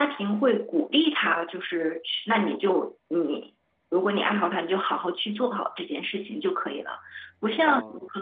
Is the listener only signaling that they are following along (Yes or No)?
Yes